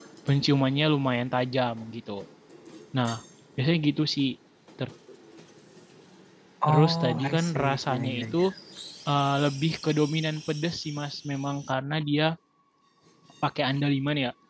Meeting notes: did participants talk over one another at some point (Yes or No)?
Yes